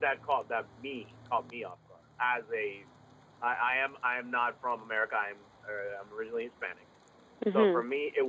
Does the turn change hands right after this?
No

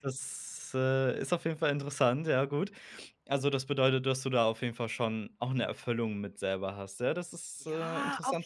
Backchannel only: No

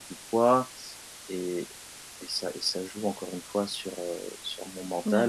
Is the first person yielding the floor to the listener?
No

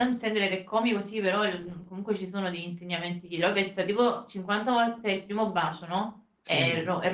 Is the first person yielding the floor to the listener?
No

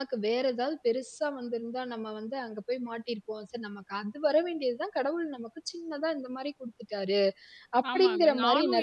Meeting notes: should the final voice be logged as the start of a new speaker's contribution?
Yes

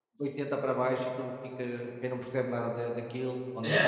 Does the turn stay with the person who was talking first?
Yes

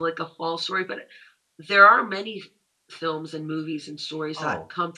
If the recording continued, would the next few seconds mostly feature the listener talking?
No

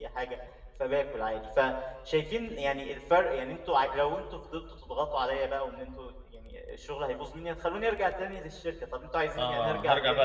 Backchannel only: No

